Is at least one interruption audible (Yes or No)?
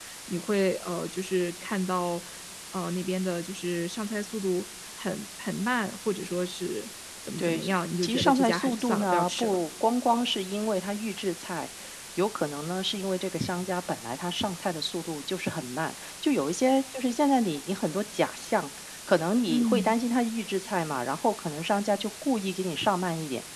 Yes